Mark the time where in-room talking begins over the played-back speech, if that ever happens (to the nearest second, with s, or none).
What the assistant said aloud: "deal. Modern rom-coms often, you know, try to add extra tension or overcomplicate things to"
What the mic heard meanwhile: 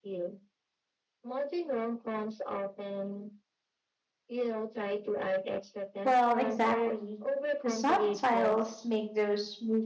6 s